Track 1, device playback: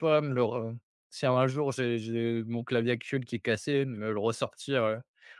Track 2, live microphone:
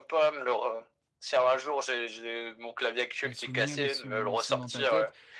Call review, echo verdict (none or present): present